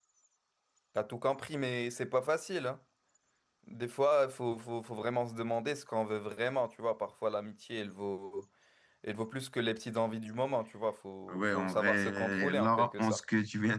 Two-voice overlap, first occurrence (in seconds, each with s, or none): 11.3 s